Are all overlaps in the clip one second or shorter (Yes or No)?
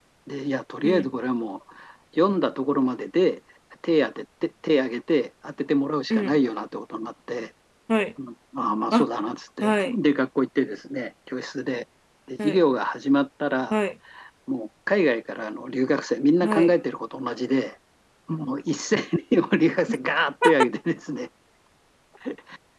Yes